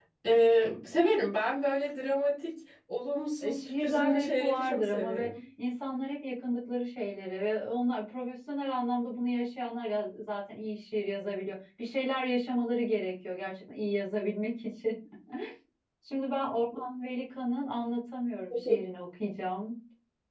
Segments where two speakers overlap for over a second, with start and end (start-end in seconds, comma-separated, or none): 3.4-5.3